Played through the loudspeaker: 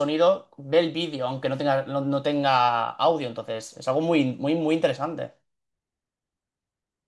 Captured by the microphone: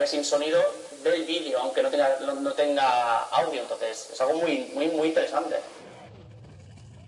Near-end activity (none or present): none